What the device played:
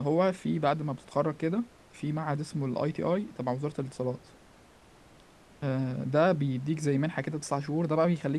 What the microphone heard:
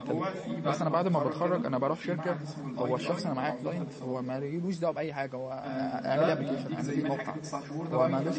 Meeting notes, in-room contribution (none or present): present